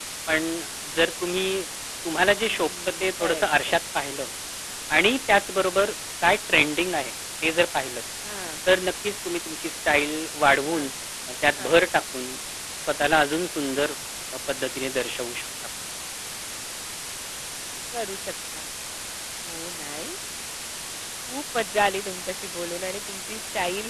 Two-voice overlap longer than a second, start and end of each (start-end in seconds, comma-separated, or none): 2.3-3.7